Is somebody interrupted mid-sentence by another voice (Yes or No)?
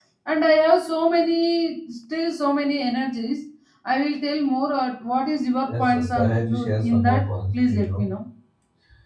Yes